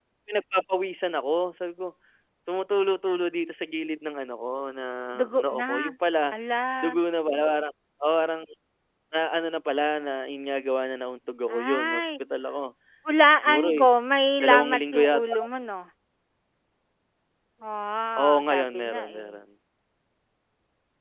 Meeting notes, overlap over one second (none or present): present